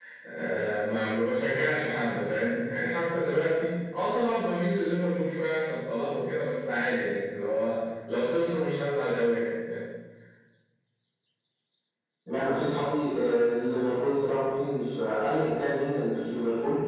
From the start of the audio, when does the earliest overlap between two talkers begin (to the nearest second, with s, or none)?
none